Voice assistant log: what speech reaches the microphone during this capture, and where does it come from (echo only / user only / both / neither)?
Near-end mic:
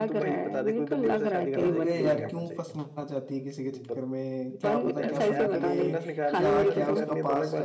both